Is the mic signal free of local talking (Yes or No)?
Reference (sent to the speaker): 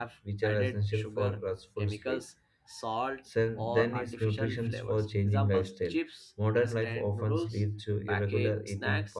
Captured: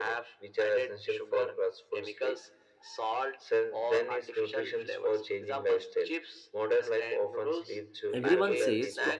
No